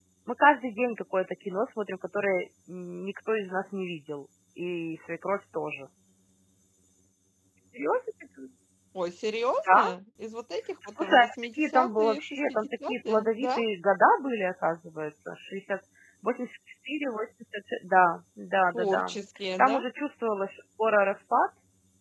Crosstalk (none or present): present